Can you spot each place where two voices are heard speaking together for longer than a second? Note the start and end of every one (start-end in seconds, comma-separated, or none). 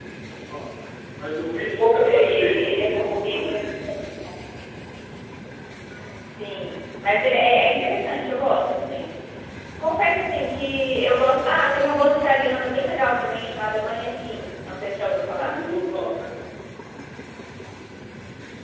1.6-3.6